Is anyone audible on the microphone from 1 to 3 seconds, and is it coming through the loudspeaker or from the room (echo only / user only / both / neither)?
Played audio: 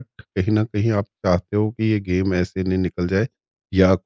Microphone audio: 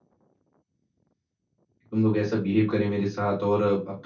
user only